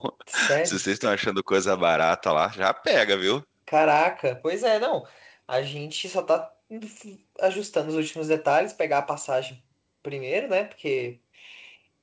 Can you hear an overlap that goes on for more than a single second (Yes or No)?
No